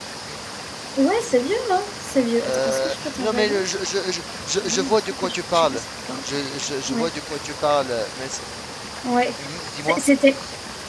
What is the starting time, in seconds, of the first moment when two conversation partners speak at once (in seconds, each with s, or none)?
2.4 s